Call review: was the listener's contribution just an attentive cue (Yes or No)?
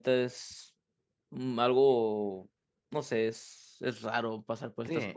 No